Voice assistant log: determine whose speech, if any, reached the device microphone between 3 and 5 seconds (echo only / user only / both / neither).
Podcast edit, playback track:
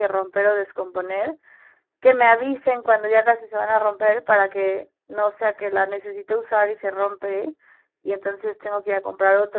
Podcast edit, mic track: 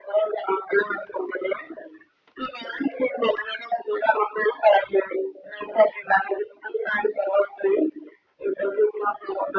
echo only